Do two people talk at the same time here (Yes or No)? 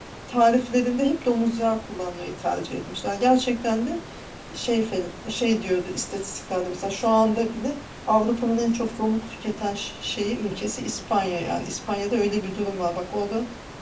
No